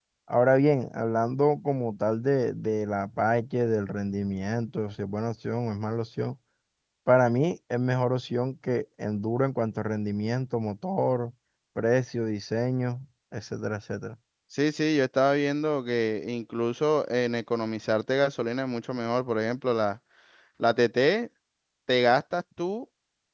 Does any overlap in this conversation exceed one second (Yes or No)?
No